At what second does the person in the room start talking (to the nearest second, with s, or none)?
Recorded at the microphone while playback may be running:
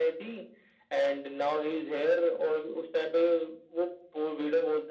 none